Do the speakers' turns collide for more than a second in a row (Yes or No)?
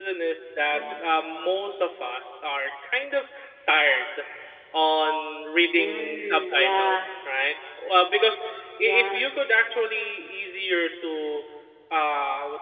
Yes